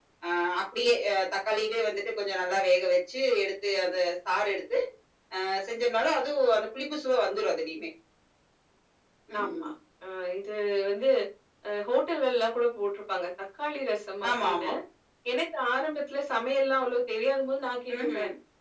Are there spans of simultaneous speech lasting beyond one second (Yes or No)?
No